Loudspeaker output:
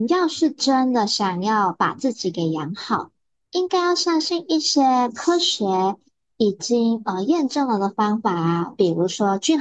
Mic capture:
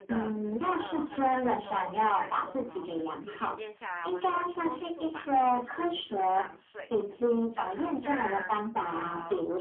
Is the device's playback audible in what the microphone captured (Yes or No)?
Yes